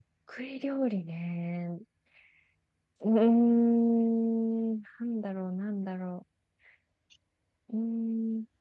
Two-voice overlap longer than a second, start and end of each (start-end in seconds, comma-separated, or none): none